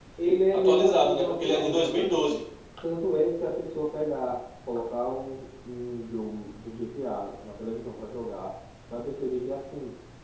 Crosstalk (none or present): present